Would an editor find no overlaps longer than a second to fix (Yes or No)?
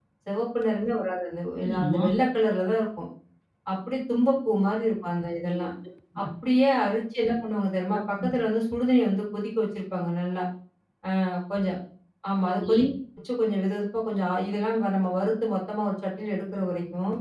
Yes